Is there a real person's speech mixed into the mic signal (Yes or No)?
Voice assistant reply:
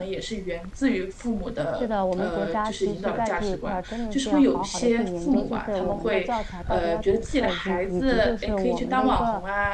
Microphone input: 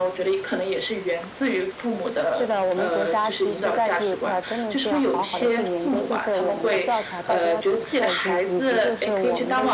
No